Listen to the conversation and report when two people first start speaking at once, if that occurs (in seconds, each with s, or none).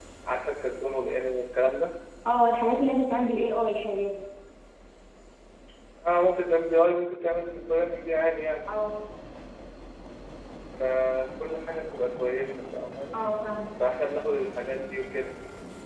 none